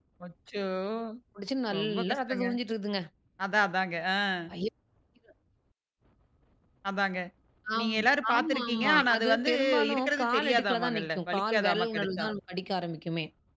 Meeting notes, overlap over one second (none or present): present